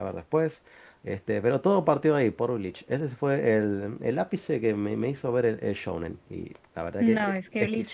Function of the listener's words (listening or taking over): taking over